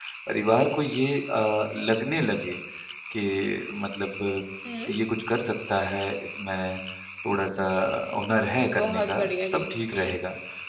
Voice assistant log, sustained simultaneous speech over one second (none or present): present